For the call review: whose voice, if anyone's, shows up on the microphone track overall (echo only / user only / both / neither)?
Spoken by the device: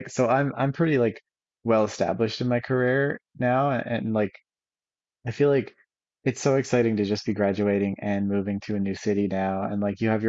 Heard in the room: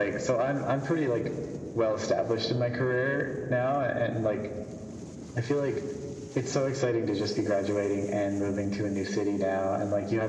echo only